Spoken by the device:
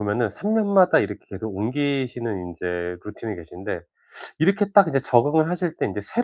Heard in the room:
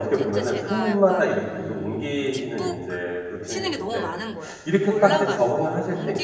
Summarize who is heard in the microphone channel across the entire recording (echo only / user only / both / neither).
both